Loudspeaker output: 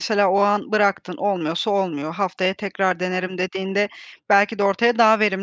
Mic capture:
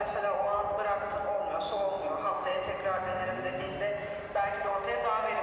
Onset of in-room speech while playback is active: none

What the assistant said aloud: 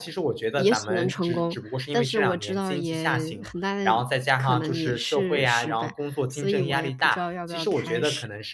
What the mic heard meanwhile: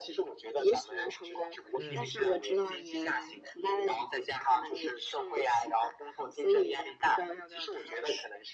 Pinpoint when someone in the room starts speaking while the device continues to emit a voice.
1.8 s

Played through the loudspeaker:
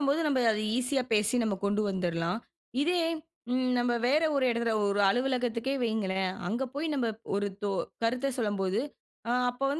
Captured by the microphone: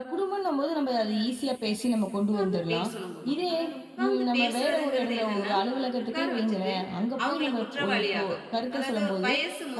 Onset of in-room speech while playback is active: 2.2 s

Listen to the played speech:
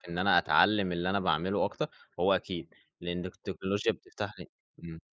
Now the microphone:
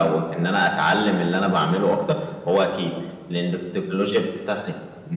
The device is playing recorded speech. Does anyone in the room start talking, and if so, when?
none

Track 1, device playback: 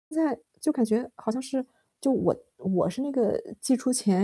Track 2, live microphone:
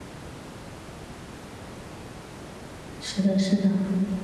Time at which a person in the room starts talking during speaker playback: 3.2 s

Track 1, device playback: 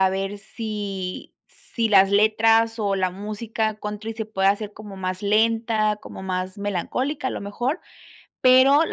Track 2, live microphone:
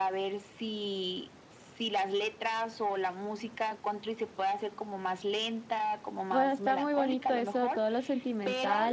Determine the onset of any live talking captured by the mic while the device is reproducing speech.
6.3 s

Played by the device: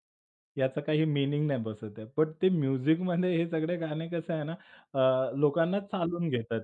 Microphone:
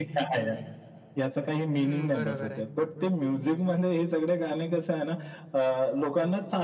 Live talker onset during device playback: 1.8 s

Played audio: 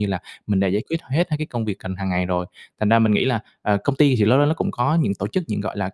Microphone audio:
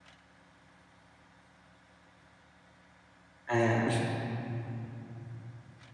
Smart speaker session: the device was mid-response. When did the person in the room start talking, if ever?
3.5 s

